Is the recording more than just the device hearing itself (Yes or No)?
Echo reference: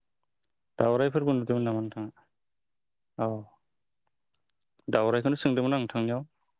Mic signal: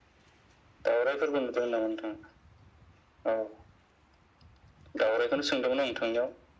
Yes